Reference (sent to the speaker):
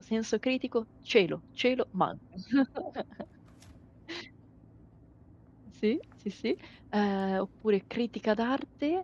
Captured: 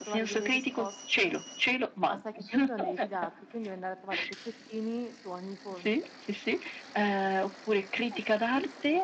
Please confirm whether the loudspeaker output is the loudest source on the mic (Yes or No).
Yes